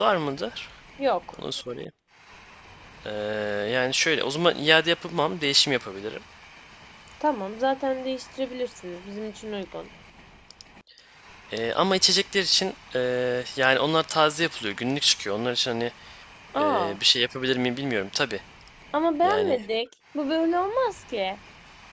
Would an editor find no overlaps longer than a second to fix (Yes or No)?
Yes